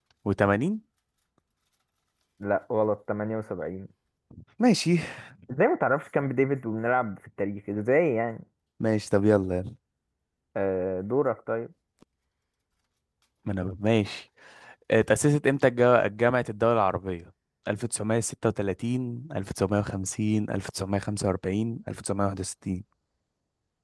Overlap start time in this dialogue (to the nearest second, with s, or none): none